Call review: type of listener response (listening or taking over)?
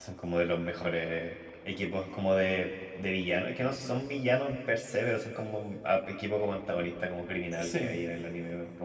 listening